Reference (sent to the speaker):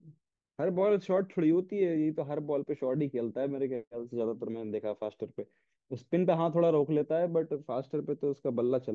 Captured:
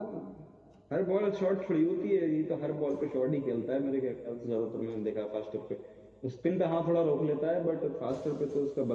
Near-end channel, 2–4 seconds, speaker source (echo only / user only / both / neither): echo only